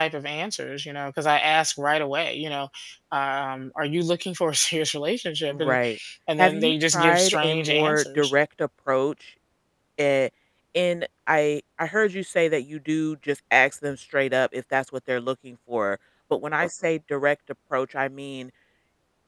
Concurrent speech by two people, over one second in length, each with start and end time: 6.4-8.3

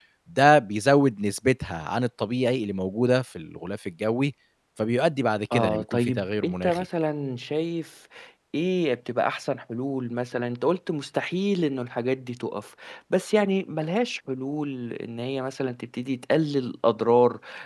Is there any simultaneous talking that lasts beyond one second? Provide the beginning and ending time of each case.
5.5-6.8

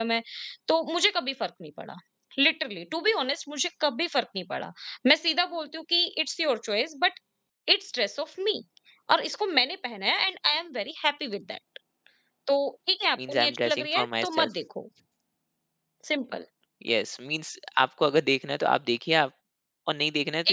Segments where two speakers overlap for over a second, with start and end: 13.3-14.5

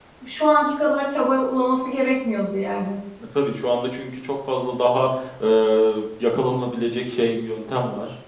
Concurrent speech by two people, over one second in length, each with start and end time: none

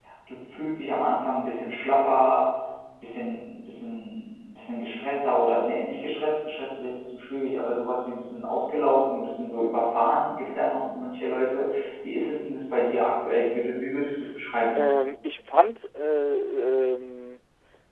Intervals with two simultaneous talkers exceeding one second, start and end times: none

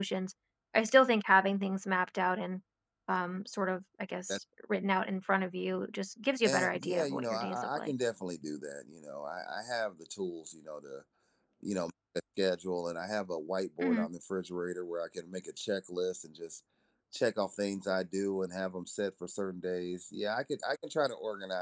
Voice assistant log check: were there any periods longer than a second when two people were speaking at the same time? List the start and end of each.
6.4-7.9

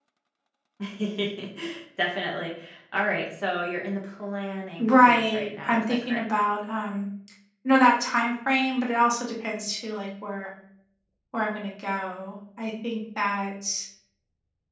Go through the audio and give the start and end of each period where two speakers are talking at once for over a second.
4.8-6.2

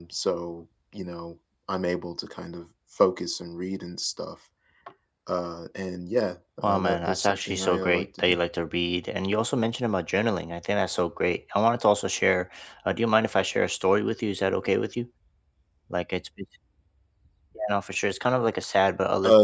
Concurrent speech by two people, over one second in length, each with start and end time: 6.6-8.4

